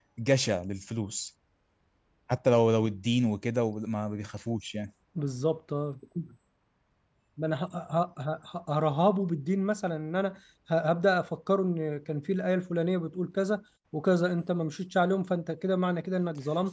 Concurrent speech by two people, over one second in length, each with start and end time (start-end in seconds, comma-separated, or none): none